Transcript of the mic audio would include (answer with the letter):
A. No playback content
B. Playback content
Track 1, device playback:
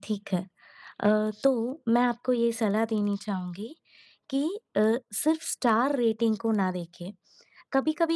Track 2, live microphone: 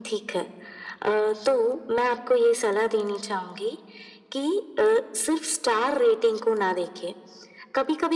B